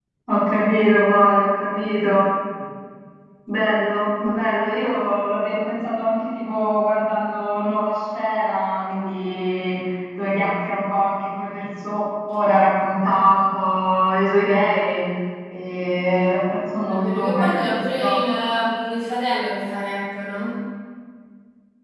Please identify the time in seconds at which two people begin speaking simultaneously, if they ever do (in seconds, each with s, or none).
16.9 s